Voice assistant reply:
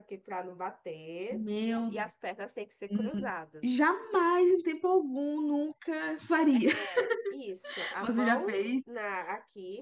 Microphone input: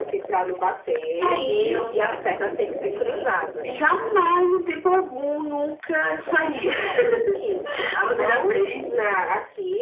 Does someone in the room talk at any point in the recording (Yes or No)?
Yes